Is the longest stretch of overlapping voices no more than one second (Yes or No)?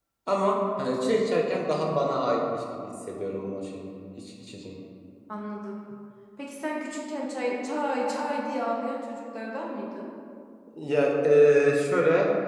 Yes